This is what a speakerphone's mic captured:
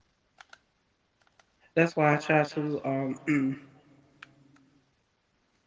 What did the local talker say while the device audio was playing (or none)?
that's why I try to um